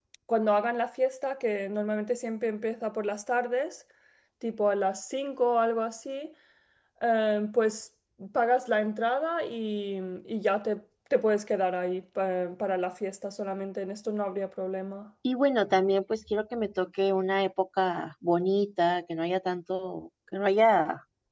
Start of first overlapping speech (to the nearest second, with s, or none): none